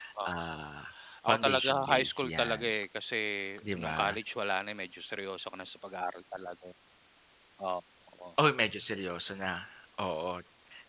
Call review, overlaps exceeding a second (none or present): present